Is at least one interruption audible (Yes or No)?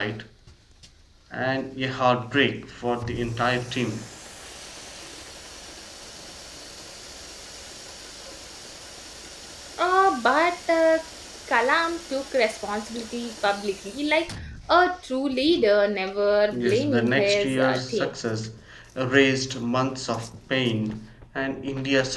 Yes